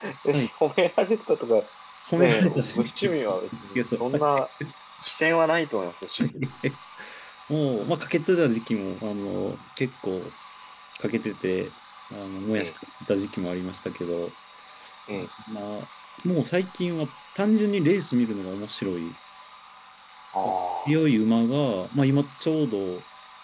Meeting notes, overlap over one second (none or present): present